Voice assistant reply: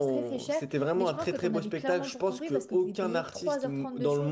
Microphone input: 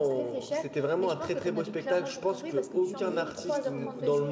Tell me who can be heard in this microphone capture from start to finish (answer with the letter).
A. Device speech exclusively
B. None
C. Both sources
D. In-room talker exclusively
C